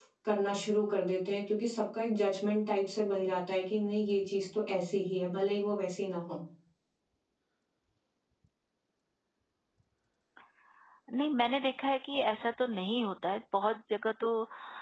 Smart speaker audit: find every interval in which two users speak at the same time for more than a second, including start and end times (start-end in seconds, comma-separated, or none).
none